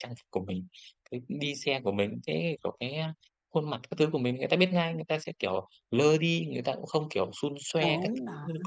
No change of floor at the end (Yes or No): No